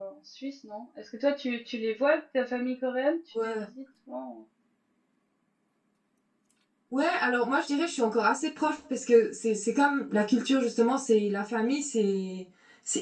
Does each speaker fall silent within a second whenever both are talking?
Yes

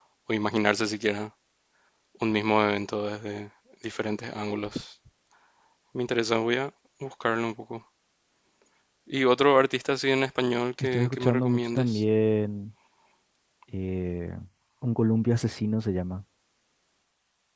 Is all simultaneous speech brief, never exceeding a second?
No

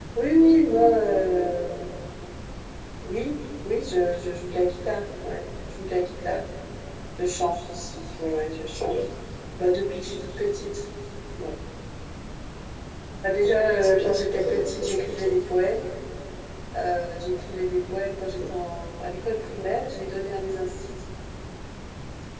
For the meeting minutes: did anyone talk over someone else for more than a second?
Yes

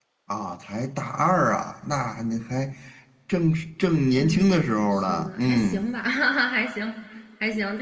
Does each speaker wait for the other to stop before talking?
No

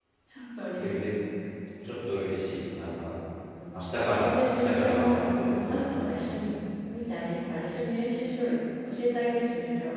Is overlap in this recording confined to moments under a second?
No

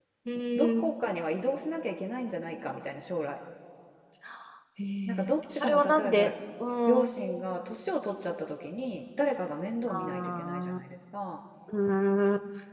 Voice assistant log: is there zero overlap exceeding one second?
No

